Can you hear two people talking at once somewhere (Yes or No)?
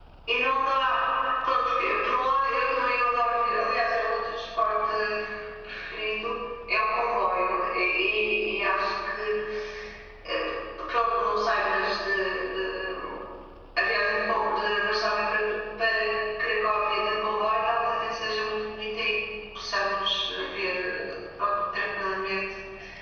No